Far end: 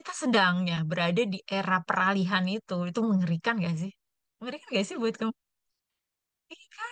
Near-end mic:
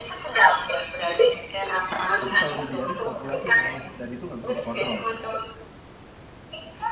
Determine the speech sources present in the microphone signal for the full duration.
both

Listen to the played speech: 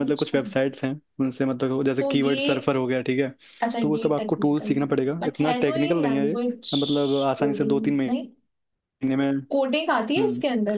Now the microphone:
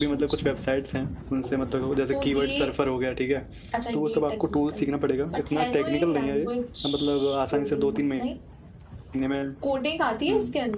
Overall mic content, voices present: echo only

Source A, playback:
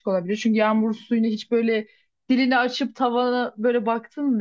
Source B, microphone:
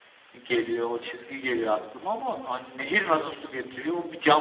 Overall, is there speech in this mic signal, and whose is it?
user only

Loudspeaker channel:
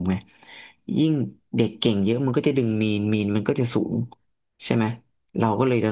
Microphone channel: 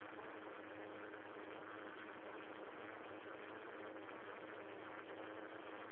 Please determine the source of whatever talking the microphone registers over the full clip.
neither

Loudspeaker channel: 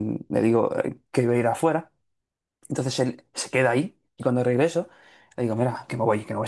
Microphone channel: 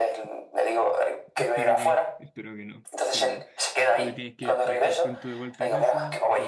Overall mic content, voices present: both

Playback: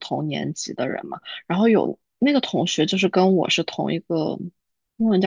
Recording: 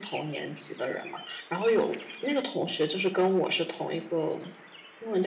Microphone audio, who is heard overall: echo only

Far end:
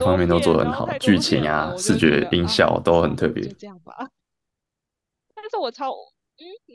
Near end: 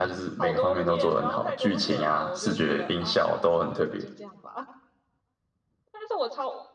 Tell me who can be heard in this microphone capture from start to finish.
echo only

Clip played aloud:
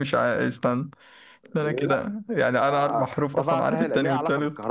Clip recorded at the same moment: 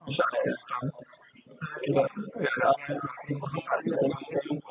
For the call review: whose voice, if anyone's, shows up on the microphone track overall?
echo only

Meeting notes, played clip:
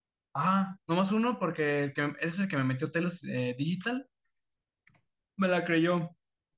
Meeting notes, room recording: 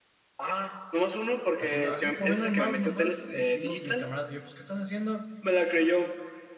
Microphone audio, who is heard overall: both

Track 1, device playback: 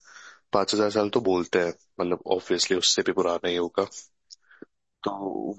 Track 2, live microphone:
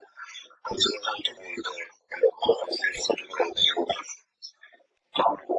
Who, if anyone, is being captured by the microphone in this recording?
echo only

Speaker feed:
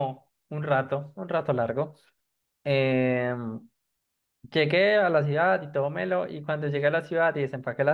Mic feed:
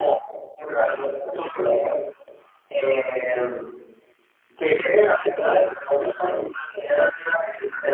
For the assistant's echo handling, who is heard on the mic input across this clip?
echo only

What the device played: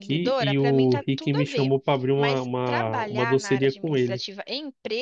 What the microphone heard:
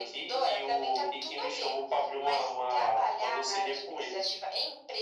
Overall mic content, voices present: echo only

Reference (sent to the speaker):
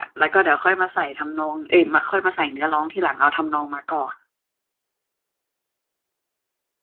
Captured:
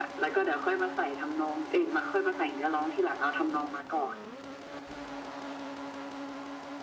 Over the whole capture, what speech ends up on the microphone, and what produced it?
echo only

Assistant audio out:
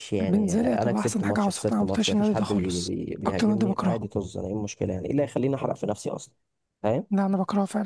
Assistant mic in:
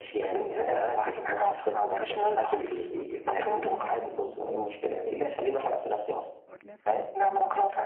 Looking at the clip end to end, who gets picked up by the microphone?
both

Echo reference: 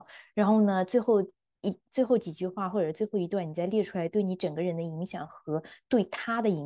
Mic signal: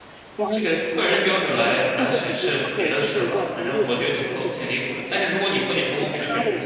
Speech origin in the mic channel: both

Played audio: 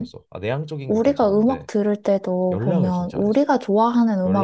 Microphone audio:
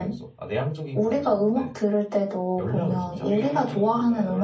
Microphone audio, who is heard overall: both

